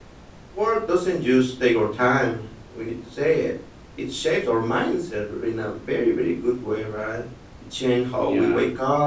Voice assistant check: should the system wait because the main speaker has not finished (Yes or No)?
Yes